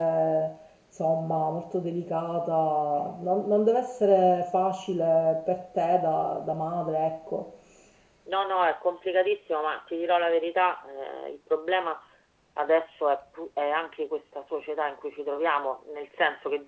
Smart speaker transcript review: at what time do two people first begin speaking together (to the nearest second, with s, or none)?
none